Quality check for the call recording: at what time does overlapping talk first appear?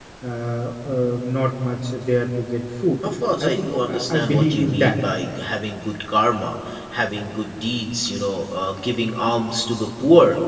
3.4 s

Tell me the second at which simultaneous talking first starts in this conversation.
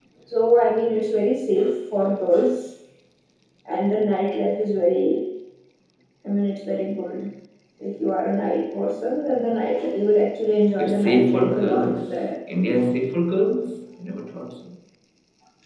10.8 s

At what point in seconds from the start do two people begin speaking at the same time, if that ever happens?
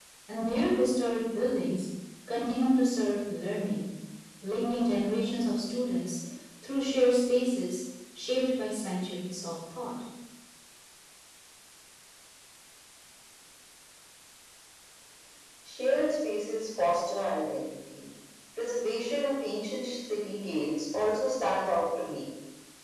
none

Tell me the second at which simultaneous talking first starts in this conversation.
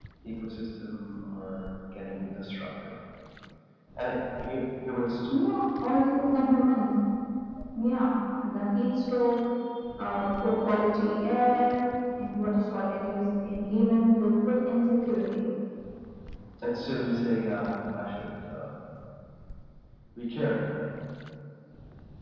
none

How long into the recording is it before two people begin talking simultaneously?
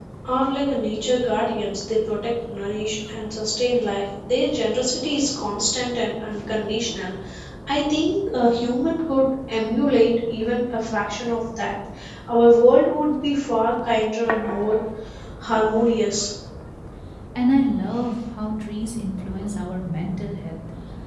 none

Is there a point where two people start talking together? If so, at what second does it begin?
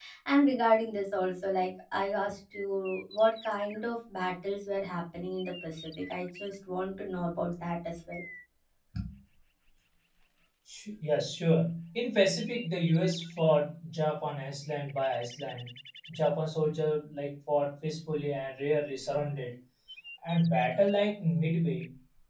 none

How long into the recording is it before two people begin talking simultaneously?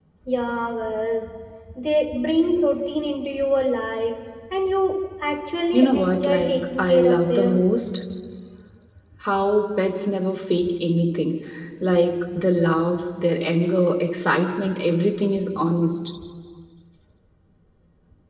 5.7 s

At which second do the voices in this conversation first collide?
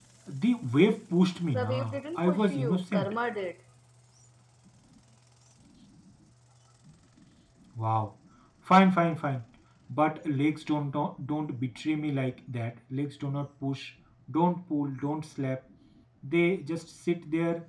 1.5 s

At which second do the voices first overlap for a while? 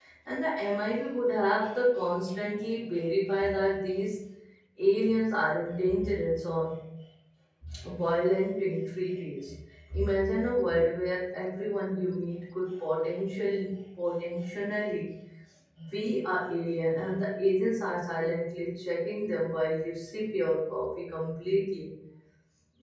none

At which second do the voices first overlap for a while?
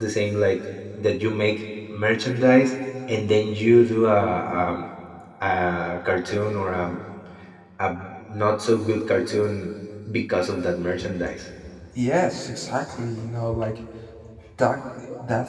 none

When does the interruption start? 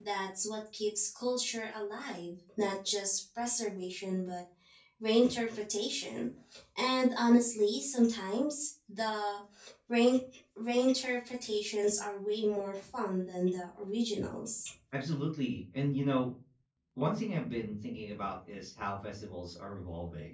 none

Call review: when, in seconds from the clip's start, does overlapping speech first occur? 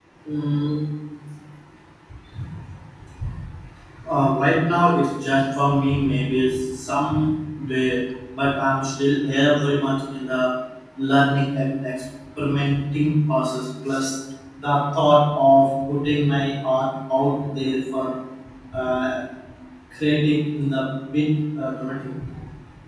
none

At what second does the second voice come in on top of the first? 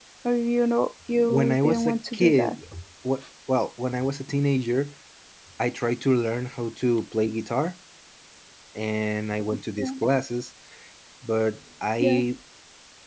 1.3 s

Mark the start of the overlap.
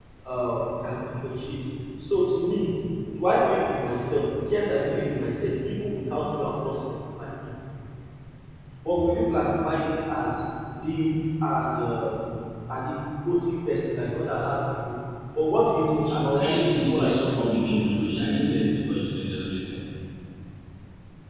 16.0 s

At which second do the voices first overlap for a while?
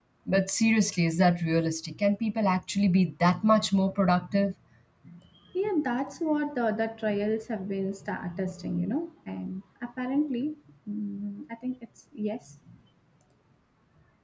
none

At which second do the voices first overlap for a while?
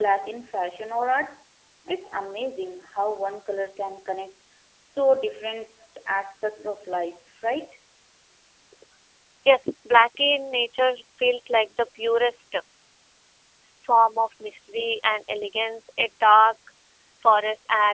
none

